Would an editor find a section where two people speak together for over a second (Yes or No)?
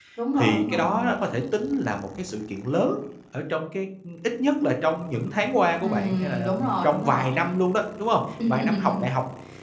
Yes